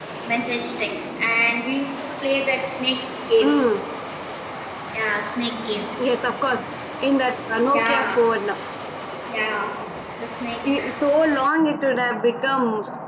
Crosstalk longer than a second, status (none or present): none